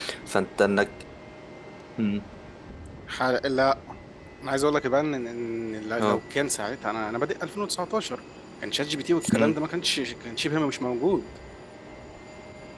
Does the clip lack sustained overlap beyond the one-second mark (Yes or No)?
Yes